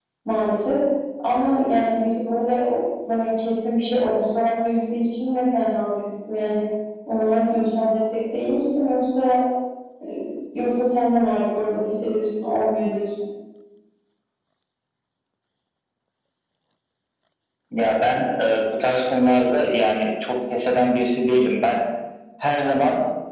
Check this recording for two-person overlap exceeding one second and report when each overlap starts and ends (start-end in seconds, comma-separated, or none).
none